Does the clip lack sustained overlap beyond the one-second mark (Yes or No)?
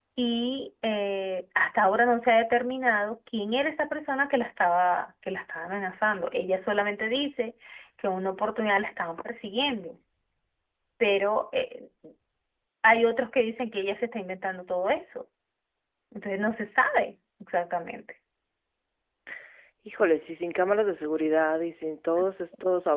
Yes